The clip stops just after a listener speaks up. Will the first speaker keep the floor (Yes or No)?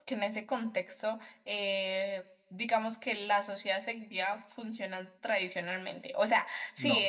Yes